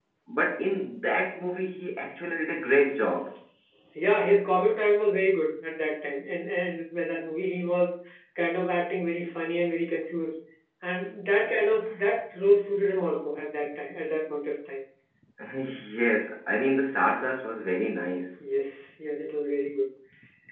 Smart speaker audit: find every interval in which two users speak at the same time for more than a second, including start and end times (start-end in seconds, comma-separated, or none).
none